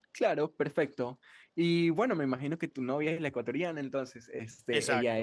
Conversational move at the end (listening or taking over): listening